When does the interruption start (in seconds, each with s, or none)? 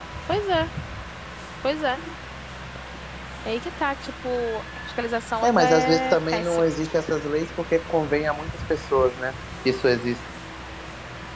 5.4 s